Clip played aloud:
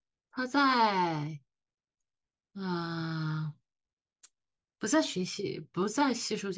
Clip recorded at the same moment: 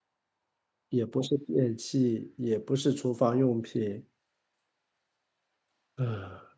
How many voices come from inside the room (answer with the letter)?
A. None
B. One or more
B